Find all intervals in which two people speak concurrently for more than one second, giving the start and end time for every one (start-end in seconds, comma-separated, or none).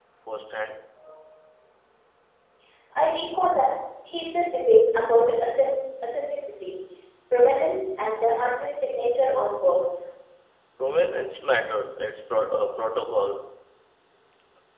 none